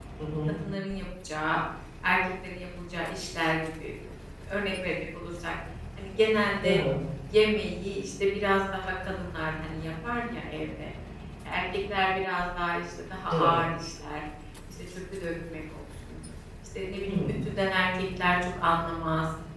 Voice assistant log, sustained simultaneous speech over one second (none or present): none